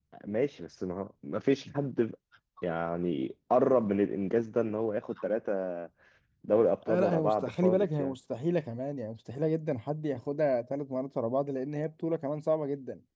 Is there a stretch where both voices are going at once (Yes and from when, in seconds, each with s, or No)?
Yes, from 6.9 s